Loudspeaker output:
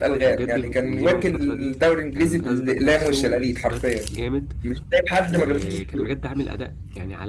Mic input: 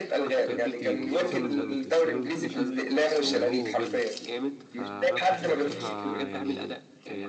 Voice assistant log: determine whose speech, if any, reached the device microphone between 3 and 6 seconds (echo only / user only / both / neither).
both